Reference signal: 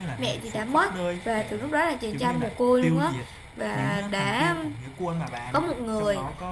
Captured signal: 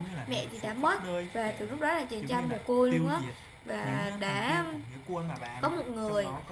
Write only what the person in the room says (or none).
none